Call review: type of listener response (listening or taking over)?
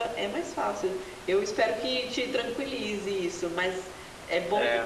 listening